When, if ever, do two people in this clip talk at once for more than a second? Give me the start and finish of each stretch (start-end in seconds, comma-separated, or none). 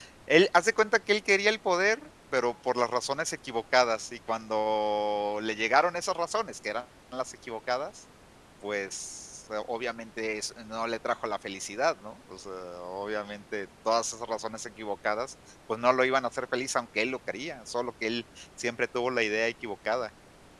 none